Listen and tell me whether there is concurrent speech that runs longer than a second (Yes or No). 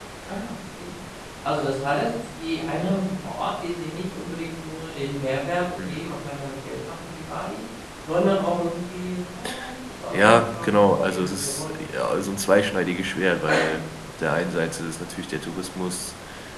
Yes